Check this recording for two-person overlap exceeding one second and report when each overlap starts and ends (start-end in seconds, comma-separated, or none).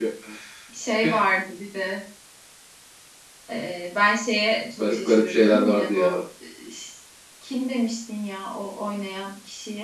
4.8-6.2